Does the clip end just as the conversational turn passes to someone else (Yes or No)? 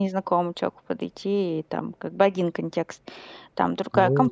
Yes